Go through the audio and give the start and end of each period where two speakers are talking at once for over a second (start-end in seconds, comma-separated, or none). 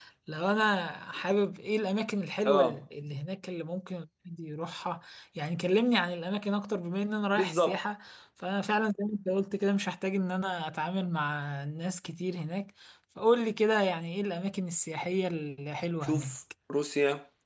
none